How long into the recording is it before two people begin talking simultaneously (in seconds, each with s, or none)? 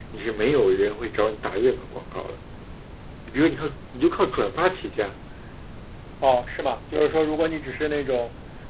none